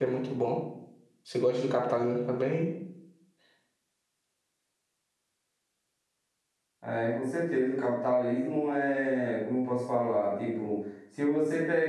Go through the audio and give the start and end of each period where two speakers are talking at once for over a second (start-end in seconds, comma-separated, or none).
none